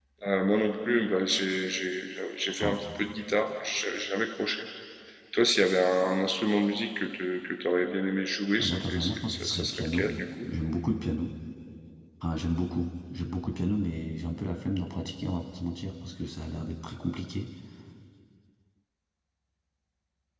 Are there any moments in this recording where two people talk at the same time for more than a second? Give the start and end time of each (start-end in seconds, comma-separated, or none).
8.6-10.1